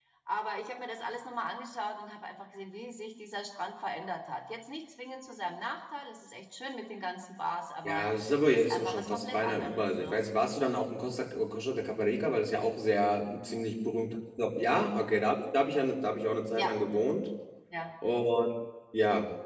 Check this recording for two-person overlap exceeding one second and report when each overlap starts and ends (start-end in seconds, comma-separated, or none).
8.5-10.2